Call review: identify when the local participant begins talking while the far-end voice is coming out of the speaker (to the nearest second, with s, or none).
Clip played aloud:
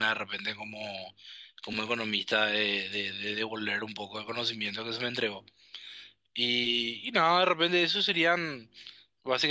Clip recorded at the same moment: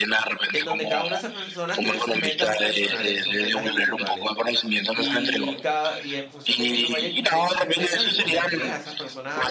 1 s